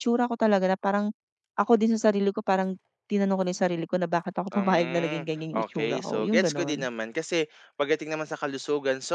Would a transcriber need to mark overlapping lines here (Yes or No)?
Yes